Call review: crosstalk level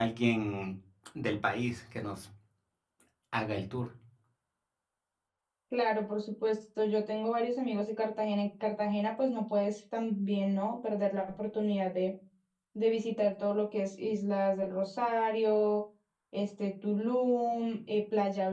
none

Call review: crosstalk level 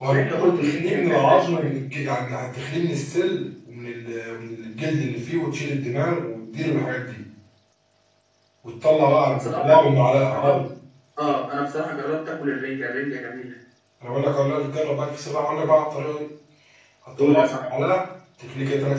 present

